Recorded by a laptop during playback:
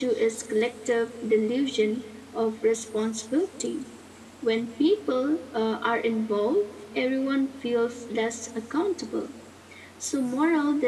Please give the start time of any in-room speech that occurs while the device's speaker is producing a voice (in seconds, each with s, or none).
none